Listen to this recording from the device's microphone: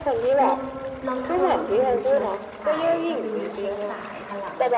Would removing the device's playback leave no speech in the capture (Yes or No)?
No